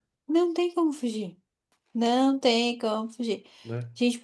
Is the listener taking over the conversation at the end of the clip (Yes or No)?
No